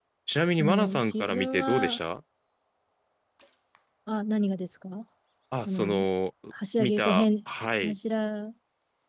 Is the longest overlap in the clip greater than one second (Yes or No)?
Yes